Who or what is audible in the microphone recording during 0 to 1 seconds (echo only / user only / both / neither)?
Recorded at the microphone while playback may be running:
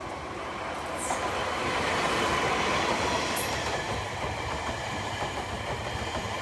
neither